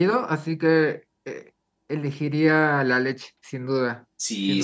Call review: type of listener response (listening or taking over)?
taking over